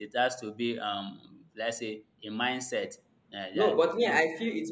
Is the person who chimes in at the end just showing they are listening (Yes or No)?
No